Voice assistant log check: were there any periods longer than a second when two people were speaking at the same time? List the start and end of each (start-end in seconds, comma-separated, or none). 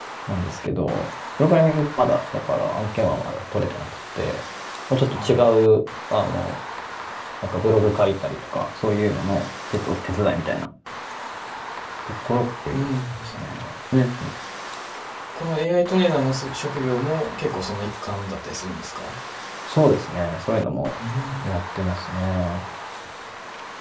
none